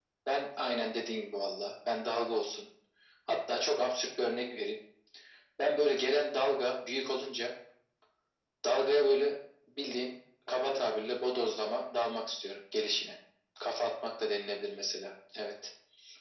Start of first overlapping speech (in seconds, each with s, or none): 10.5 s